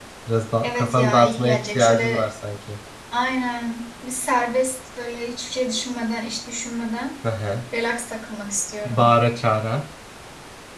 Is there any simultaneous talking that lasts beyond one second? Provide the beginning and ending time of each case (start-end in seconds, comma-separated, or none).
0.6-2.2